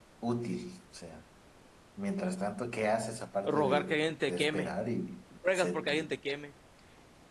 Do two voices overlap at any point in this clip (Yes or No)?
Yes